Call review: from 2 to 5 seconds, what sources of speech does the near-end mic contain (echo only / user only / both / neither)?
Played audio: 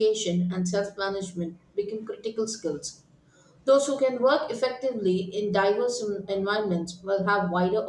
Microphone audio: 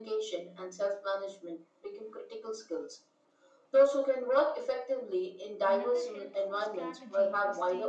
echo only